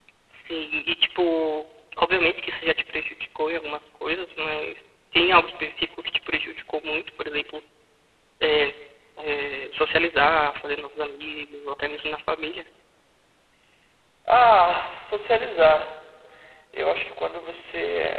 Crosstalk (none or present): none